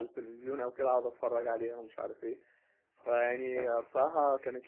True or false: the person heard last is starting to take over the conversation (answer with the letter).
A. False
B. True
A